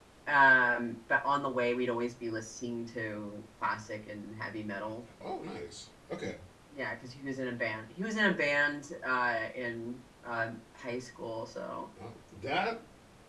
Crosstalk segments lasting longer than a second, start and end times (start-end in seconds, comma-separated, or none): none